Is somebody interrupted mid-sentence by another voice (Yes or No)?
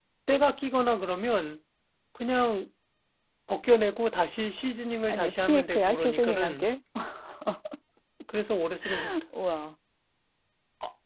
Yes